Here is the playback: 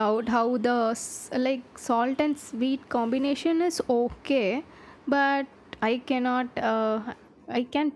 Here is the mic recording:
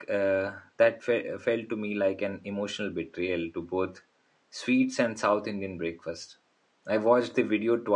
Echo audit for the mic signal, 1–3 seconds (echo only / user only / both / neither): user only